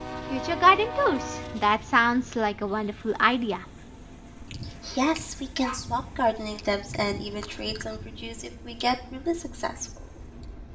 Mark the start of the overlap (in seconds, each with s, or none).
none